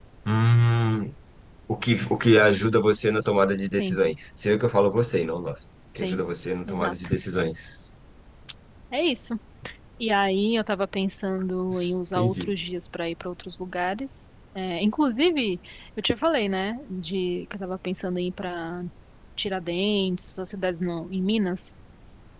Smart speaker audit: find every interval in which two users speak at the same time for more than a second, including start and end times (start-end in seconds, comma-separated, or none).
none